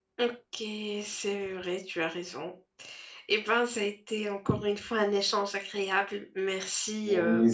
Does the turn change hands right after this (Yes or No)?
Yes